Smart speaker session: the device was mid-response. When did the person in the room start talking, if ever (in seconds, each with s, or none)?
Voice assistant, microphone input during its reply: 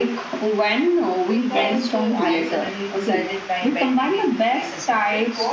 1.2 s